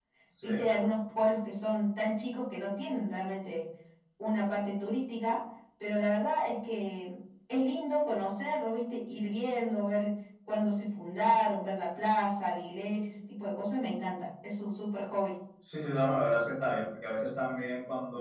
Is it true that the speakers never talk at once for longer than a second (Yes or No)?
Yes